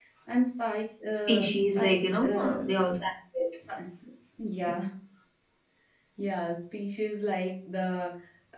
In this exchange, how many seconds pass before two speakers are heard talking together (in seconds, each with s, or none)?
1.3 s